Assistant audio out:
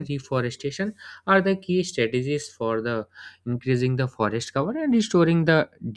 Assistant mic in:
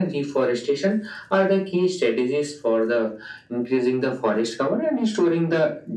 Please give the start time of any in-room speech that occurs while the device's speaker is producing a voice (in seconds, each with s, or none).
none